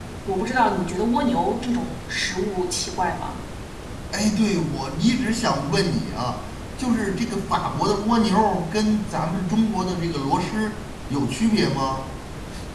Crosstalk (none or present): none